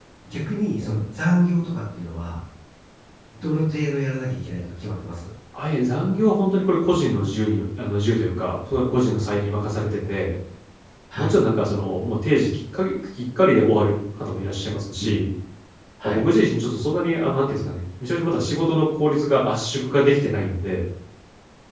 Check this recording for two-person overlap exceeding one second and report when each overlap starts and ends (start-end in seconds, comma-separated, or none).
none